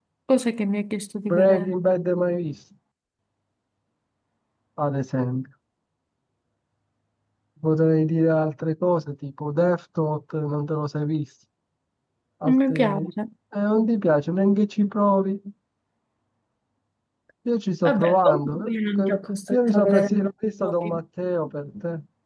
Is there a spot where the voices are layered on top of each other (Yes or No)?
Yes